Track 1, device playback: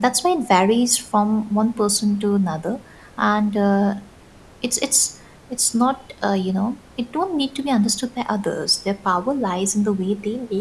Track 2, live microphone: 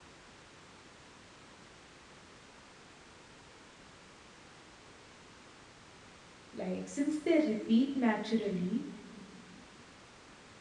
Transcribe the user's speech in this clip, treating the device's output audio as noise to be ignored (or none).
Like, since they repeat naturally,